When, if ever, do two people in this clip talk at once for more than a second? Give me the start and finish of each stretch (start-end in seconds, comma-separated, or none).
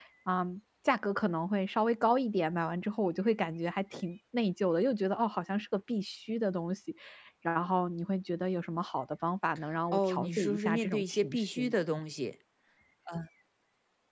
9.9-11.8